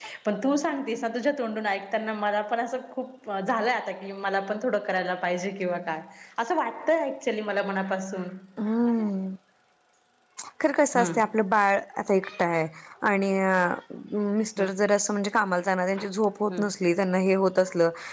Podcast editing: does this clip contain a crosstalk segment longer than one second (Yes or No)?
No